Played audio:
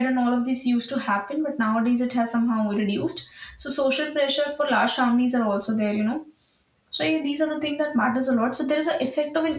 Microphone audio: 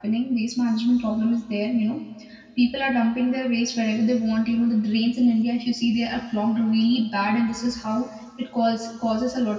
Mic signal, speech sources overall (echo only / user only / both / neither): user only